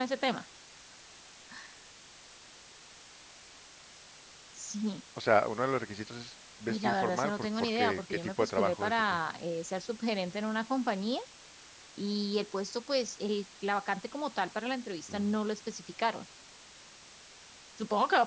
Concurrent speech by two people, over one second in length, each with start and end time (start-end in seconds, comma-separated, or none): 6.7-9.2